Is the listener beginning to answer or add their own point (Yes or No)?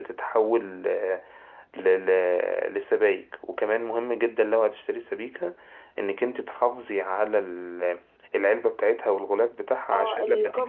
Yes